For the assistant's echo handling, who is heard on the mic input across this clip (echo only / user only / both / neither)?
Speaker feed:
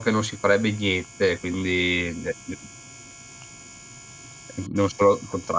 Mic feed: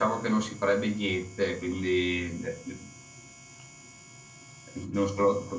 echo only